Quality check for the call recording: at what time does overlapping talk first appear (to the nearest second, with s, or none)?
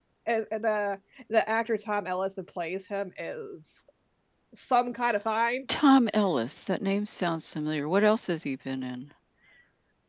none